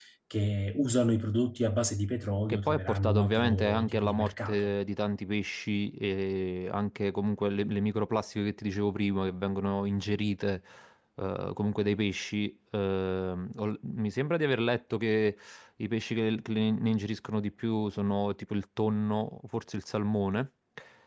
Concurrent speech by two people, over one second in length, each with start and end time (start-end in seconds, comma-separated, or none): 2.5-4.7